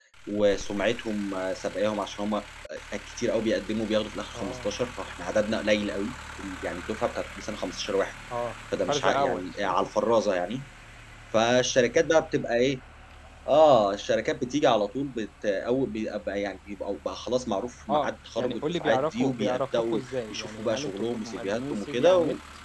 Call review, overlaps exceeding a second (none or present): present